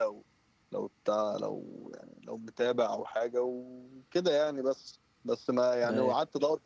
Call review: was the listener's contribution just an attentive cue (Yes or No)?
Yes